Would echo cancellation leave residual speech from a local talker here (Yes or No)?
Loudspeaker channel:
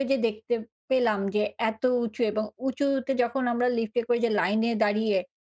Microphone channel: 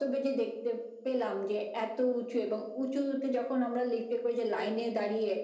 No